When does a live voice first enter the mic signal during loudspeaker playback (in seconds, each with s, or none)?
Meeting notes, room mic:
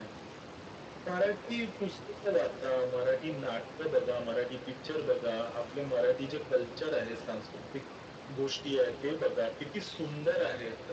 none